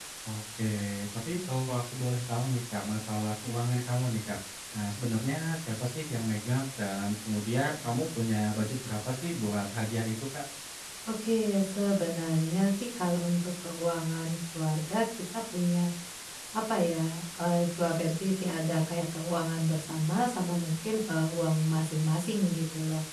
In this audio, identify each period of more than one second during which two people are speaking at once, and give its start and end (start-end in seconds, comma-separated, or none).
none